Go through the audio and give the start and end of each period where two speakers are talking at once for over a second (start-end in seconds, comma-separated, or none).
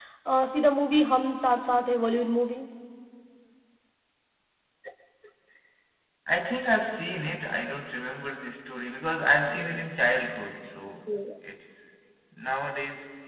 none